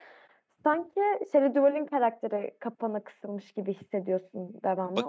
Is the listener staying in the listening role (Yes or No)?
No